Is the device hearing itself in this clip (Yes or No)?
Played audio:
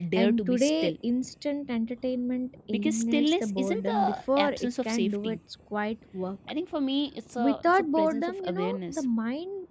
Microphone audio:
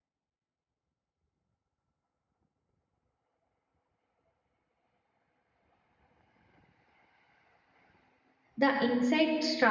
No